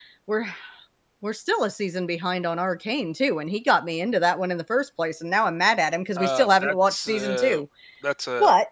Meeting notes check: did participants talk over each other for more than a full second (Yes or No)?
Yes